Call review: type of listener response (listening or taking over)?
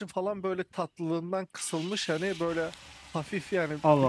listening